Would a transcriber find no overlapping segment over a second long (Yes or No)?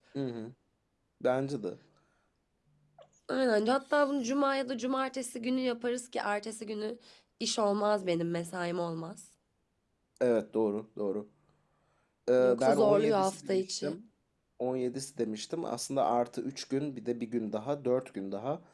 No